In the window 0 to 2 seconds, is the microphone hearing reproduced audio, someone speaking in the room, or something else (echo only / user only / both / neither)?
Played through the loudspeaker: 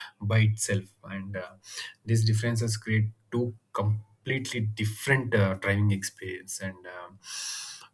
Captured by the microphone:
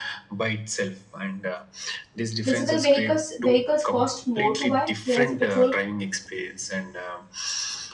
echo only